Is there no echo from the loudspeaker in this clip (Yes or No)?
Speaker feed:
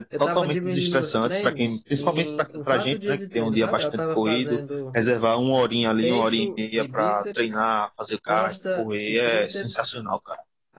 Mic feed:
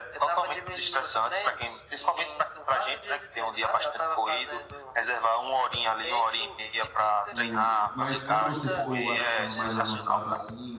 No